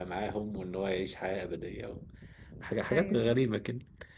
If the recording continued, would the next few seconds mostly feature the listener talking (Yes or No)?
No